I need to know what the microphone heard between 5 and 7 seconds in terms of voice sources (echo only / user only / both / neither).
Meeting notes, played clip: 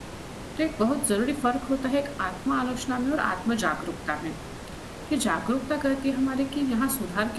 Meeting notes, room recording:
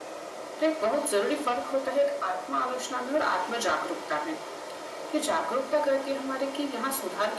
echo only